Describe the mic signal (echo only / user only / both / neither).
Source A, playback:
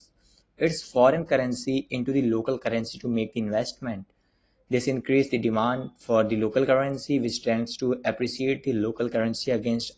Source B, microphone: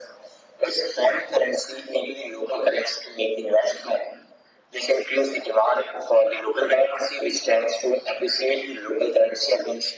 echo only